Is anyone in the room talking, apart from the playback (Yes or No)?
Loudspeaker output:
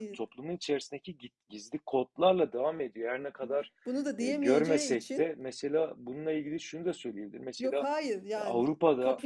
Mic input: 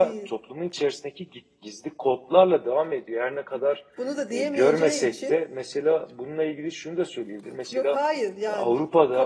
No